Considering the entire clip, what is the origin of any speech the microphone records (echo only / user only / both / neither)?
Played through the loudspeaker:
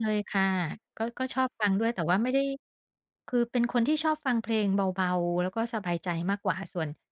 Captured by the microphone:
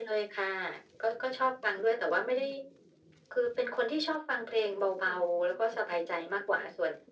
echo only